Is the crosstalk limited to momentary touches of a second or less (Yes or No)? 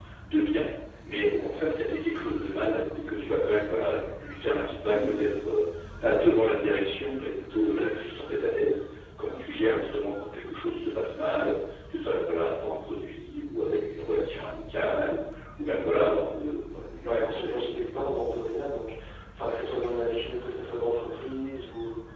Yes